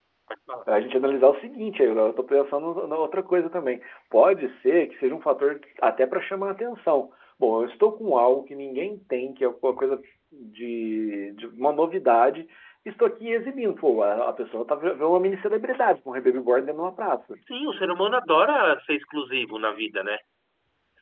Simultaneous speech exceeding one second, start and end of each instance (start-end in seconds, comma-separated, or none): none